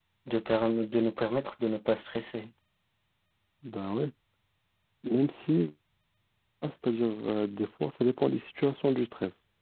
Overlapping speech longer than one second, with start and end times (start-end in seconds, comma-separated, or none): none